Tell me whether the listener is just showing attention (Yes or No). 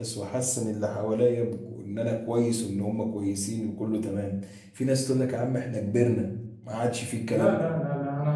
No